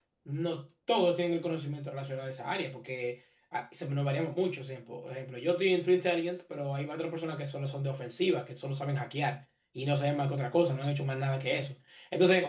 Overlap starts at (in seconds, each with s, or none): none